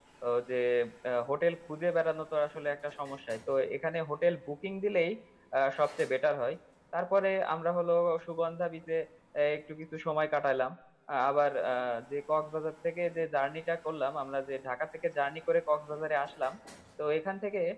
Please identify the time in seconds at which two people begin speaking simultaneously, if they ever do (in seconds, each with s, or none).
none